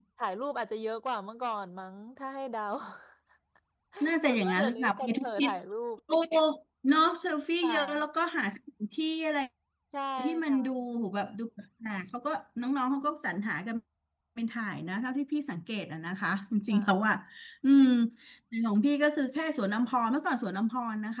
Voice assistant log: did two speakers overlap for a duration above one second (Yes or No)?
Yes